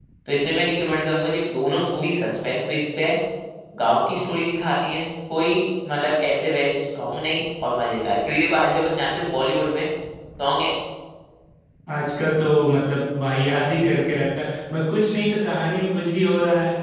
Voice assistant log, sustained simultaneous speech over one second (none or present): none